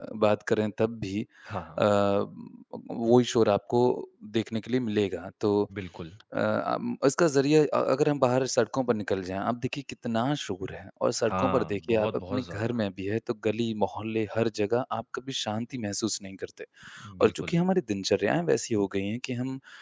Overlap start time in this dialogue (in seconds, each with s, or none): 11.2 s